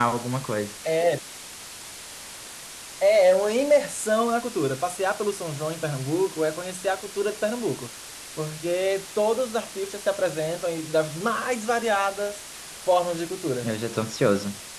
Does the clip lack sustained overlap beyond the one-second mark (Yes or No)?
Yes